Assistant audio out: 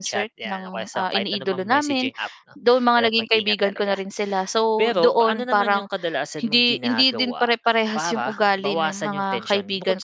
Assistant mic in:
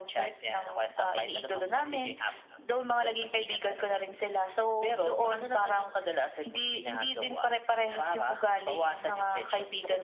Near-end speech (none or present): none